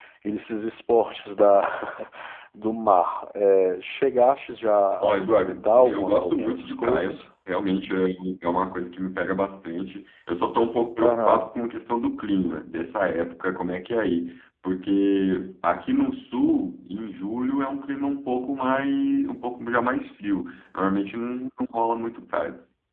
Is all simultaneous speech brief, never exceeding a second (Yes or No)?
No